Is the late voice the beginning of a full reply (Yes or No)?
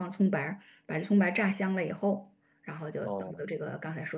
No